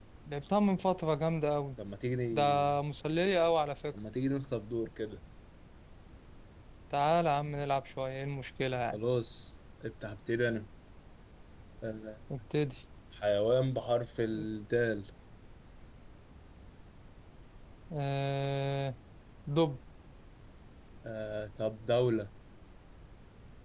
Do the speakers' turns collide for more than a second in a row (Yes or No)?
No